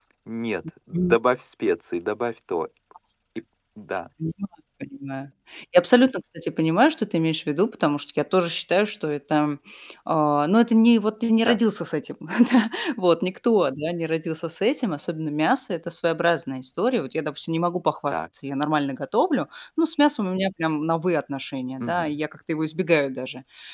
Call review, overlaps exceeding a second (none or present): none